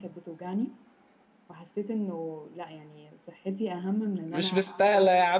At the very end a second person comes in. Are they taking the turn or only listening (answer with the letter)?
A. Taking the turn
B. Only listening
A